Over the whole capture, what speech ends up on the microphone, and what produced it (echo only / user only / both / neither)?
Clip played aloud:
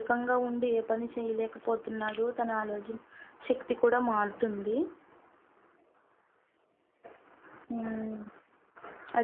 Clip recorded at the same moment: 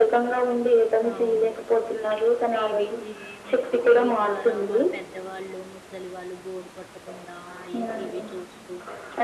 both